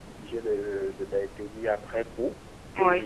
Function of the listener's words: listening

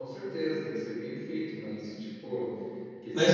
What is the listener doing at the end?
taking over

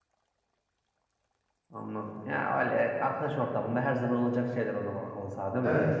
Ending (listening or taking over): taking over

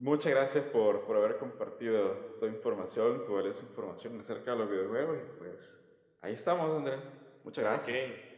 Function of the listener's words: taking over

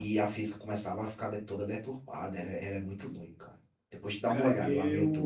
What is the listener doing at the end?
taking over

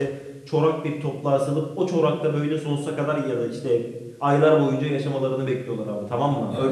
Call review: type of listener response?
taking over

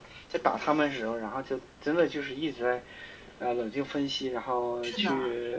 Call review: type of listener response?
listening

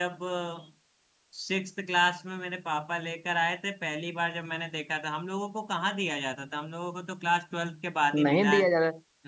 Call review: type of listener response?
taking over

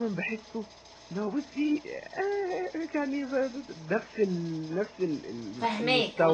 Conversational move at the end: taking over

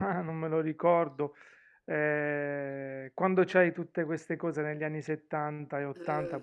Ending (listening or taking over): listening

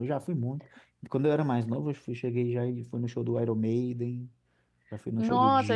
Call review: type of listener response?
taking over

